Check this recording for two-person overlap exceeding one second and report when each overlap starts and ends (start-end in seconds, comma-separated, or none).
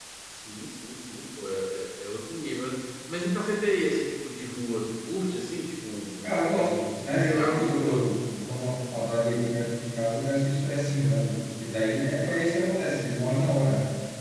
6.2-8.1